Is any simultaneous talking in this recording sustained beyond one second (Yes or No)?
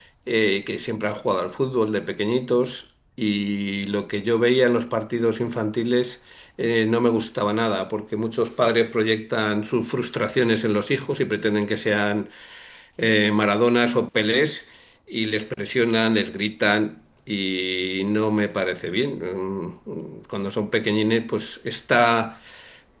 No